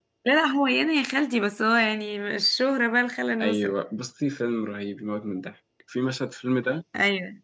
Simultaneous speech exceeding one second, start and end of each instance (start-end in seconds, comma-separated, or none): none